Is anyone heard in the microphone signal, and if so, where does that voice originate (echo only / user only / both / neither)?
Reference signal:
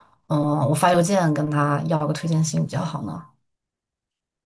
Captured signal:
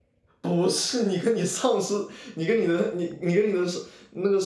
user only